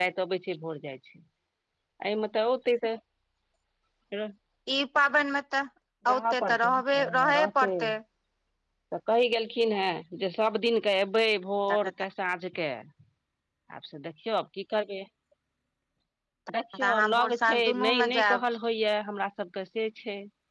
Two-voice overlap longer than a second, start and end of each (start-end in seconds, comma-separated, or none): 6.1-7.7, 16.9-18.4